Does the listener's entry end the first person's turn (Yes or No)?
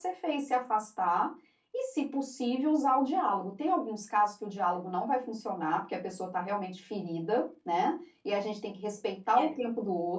No